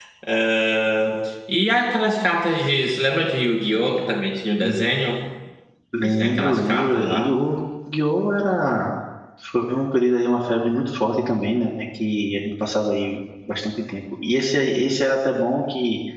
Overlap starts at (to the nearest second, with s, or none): 6 s